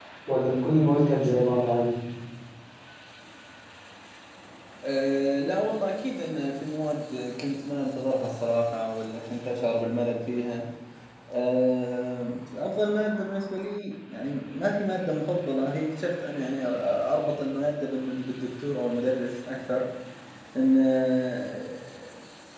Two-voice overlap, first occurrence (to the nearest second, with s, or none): none